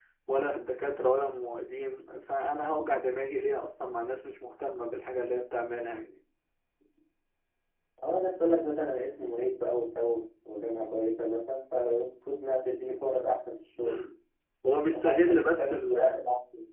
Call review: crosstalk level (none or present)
present